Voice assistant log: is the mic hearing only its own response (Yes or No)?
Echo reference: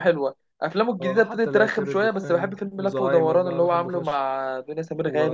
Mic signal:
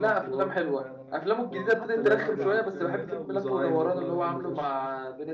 No